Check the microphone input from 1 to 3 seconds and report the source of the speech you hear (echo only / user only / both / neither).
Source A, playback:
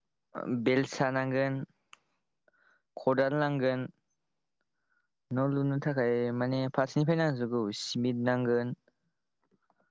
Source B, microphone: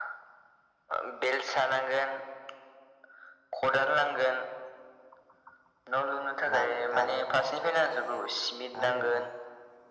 echo only